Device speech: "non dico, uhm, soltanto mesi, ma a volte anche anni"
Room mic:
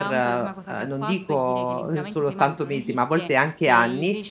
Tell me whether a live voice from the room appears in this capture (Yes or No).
Yes